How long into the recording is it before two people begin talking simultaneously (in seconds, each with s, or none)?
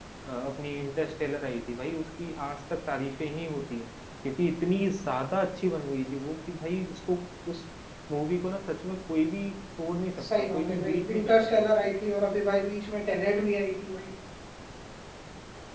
10.2 s